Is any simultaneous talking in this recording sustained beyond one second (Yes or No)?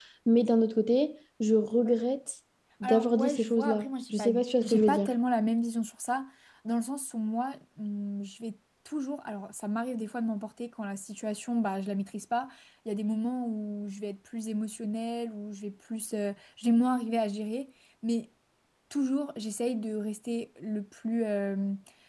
Yes